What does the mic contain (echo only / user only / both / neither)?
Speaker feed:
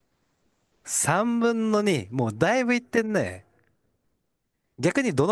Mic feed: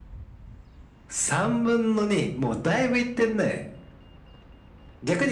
echo only